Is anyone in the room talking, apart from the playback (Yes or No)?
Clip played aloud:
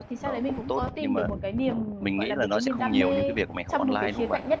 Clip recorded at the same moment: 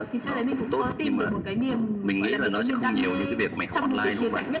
No